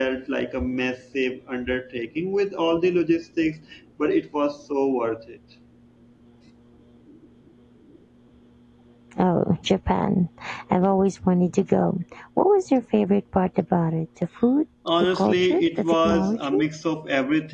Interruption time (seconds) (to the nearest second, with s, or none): 15 s